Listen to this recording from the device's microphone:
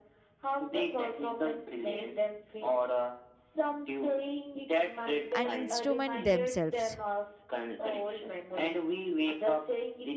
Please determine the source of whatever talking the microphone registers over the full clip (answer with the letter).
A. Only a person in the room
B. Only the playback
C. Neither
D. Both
D